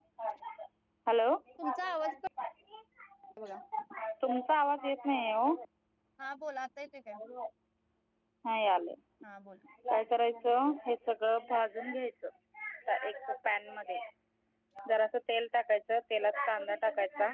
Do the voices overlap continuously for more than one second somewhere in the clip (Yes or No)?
No